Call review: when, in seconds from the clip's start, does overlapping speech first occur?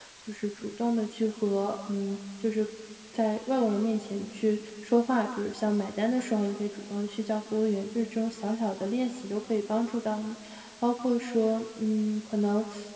none

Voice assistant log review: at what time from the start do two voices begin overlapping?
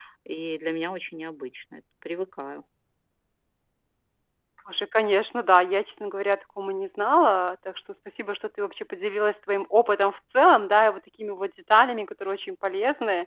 none

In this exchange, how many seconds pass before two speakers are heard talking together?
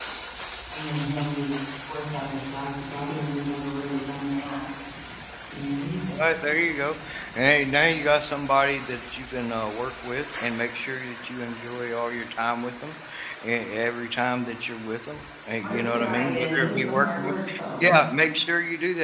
15.6 s

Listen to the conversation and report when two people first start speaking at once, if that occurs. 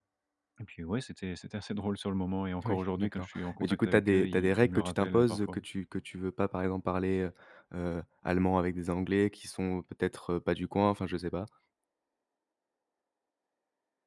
2.6 s

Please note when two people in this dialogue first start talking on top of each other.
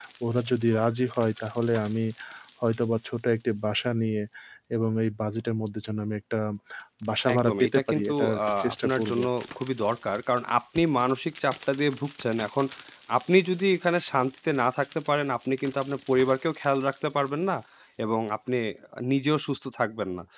7.3 s

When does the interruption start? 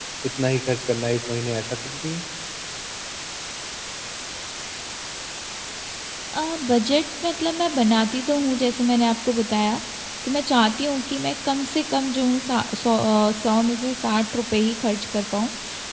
none

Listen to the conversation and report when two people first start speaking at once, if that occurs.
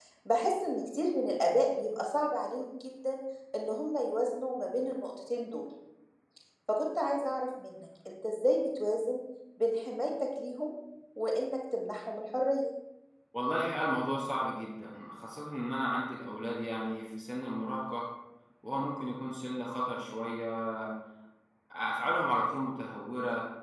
none

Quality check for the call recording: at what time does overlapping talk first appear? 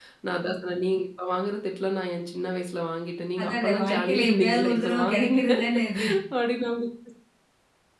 3.4 s

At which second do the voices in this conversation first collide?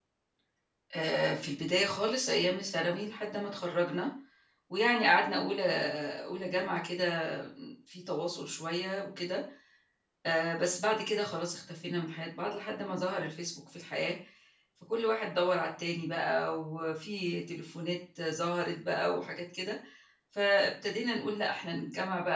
none

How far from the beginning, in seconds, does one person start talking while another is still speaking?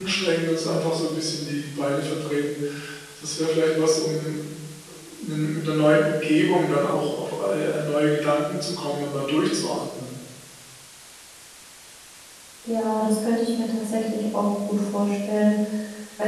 none

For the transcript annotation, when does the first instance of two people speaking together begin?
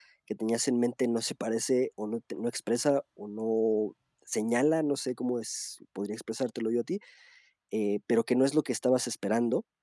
none

